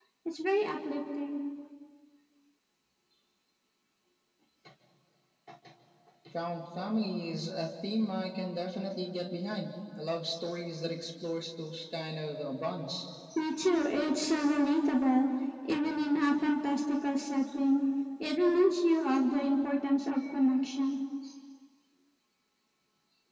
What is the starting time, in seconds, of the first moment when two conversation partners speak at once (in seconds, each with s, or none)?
none